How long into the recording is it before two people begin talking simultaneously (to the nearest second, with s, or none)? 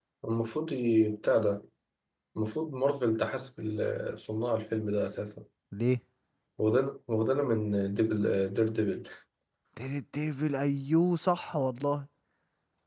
none